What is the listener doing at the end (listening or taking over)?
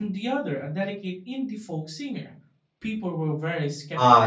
taking over